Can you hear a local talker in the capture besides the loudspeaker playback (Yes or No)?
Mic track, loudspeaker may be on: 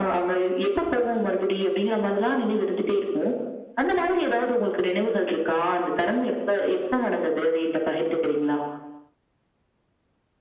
No